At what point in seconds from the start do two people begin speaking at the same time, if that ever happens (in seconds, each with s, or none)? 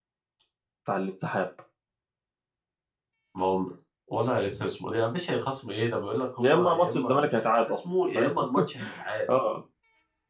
6.4 s